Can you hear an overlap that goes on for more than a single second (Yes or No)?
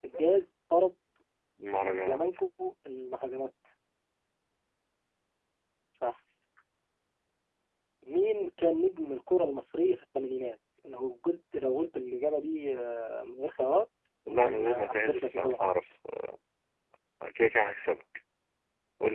Yes